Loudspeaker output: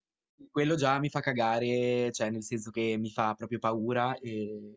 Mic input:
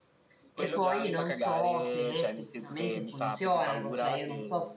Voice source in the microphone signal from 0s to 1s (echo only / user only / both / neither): both